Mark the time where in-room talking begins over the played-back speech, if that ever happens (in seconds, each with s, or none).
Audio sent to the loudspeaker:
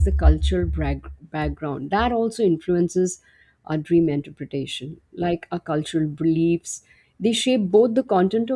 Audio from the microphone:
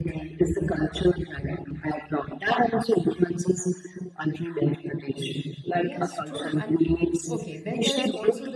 5.8 s